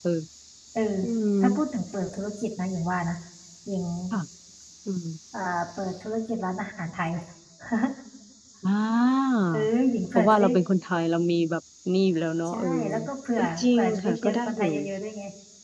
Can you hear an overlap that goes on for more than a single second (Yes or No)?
Yes